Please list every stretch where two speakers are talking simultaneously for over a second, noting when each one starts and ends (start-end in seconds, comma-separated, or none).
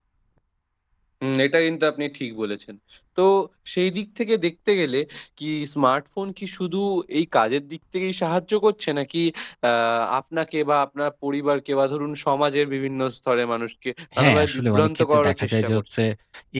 14.2-16.0